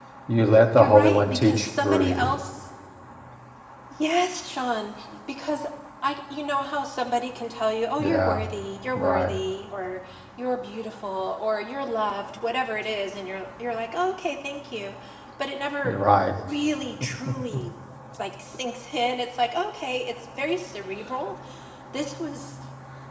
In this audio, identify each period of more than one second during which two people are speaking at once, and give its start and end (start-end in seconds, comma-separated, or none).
0.8-2.3